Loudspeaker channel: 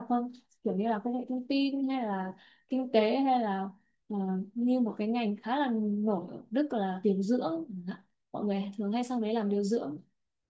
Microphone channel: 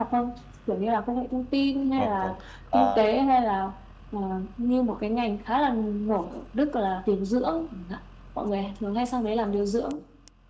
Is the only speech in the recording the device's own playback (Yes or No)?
No